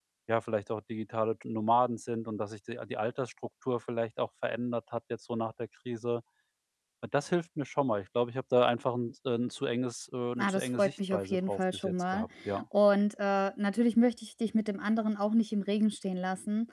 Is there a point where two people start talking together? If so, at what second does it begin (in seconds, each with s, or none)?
10.4 s